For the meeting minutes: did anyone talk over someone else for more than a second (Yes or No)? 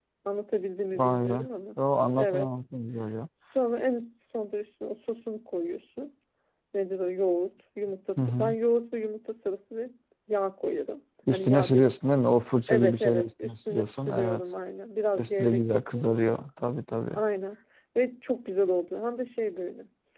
Yes